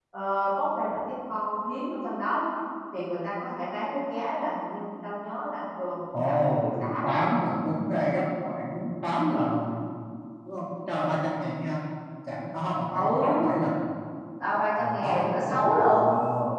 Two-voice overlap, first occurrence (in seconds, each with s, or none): 6.1 s